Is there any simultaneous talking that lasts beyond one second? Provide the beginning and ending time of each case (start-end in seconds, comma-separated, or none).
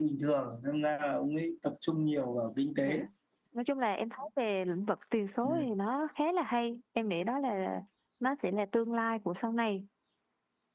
none